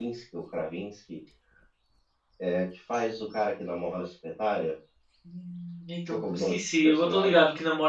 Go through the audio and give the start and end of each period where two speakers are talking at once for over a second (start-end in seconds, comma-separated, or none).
6.1-7.4